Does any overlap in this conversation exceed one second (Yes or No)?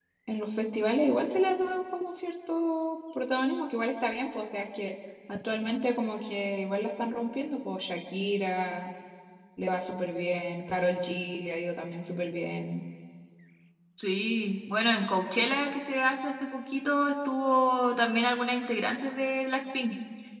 No